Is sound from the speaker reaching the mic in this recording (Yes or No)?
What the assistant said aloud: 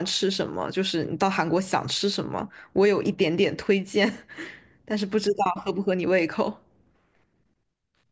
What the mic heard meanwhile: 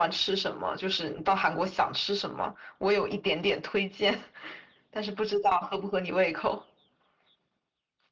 Yes